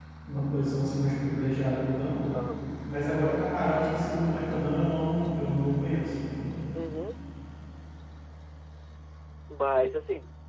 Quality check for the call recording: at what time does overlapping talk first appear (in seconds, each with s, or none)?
none